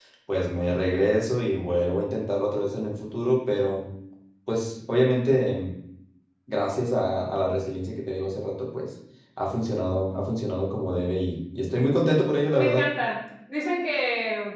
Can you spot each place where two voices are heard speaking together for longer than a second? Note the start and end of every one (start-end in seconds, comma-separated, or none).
none